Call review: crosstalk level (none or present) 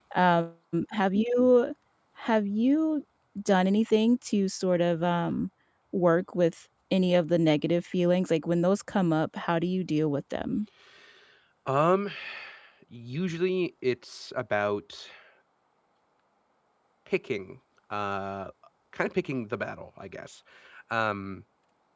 none